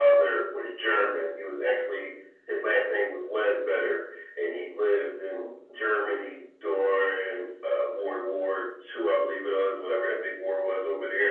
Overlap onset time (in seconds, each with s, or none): none